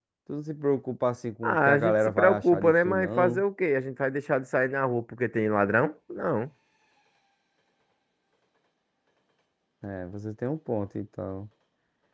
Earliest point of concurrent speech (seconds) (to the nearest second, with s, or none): 1 s